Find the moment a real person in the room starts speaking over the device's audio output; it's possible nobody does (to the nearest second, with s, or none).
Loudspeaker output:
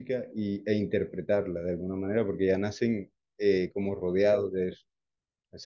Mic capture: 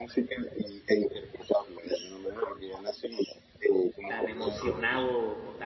4 s